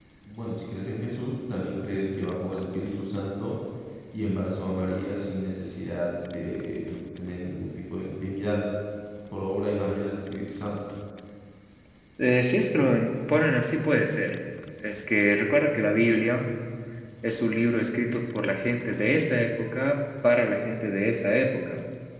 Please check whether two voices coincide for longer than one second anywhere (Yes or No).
No